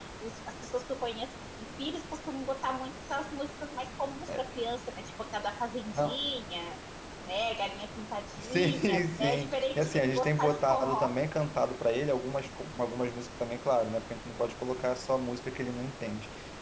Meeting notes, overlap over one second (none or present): present